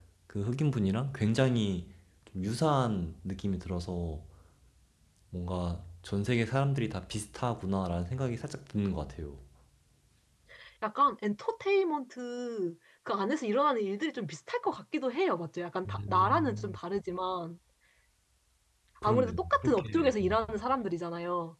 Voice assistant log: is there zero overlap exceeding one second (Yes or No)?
No